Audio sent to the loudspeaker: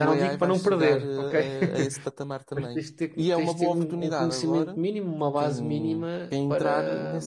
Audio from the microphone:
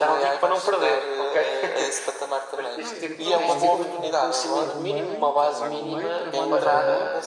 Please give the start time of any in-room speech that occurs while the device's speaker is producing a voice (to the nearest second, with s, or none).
3 s